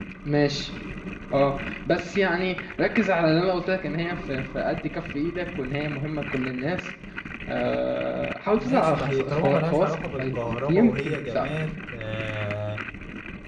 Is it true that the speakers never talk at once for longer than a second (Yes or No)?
No